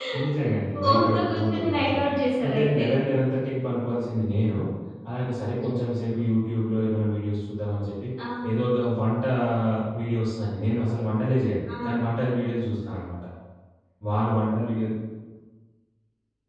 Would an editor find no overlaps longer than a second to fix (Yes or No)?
No